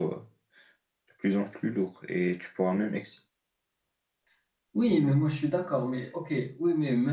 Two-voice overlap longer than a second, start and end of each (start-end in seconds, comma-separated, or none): none